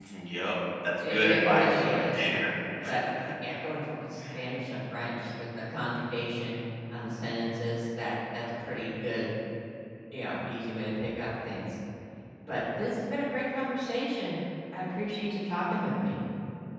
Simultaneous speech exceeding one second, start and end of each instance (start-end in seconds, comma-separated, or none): 1.0-2.3